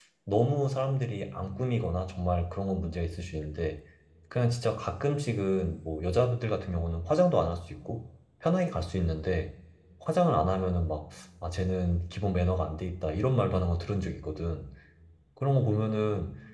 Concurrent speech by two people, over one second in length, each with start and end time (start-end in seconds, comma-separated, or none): none